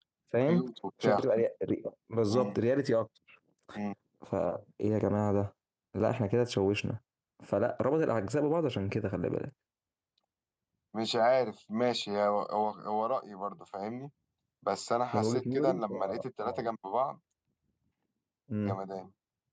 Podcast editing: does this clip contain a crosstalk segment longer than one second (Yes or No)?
Yes